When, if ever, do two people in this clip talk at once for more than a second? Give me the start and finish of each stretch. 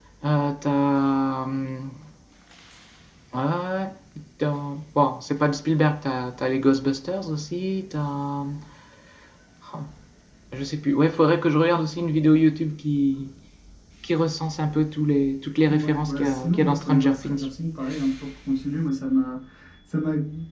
15.7-17.5

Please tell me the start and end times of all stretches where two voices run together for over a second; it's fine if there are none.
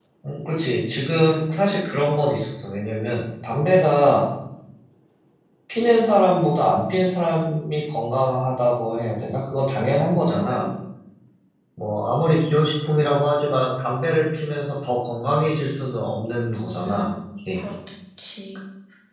none

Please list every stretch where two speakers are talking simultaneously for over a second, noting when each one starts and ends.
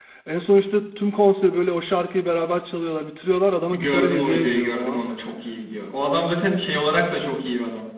3.7-5.0

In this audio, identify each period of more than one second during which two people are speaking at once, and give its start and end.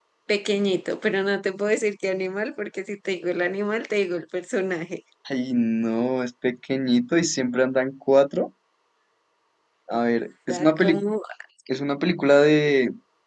none

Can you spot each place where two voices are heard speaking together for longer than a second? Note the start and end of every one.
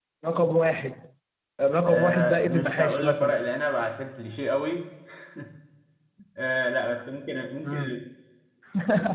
1.9-3.5

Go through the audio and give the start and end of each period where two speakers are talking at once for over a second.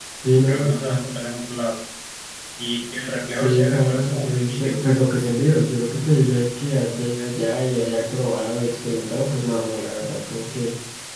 3.3-5.0

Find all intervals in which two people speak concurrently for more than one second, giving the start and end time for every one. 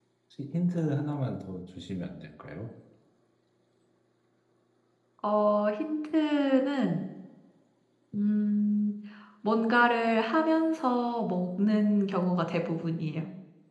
none

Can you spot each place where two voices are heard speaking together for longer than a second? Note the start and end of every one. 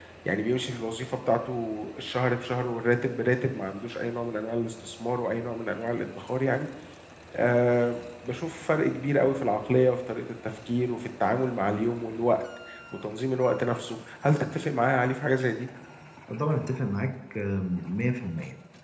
none

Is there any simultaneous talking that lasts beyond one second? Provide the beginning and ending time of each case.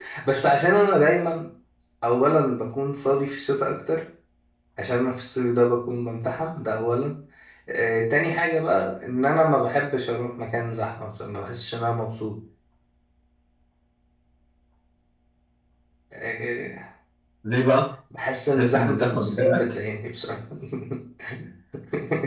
18.5-19.7

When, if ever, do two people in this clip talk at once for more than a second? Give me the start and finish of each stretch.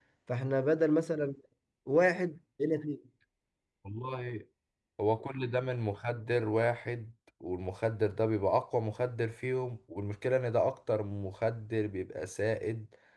none

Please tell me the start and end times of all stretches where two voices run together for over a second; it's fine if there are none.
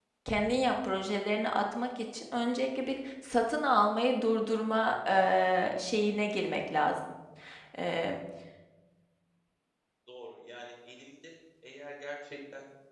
none

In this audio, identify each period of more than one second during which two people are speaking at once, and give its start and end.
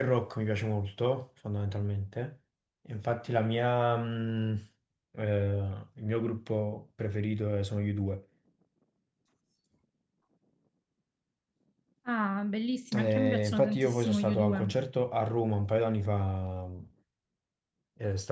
12.9-14.7

